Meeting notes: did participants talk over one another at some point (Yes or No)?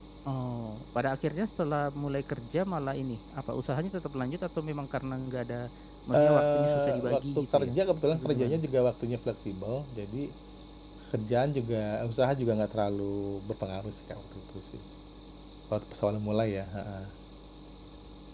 Yes